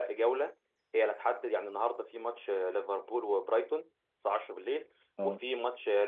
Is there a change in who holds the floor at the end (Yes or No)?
No